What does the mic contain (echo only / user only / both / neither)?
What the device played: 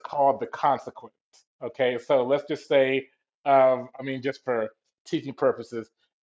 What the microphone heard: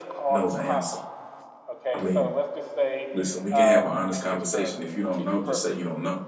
both